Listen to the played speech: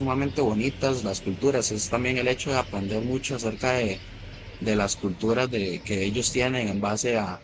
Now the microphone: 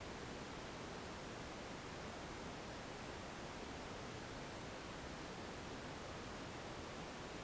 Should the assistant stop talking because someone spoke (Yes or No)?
No